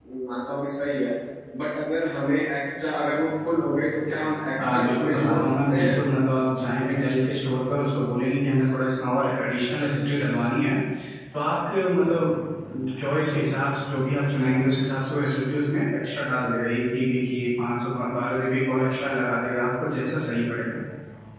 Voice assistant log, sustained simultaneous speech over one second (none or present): present